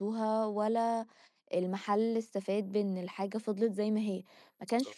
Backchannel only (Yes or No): Yes